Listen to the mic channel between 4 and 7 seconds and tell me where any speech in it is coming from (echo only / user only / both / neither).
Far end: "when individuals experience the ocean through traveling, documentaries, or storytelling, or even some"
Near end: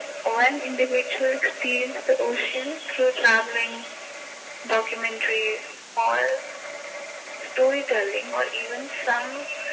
echo only